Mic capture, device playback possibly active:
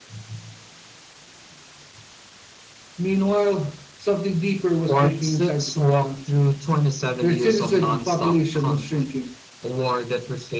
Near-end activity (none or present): none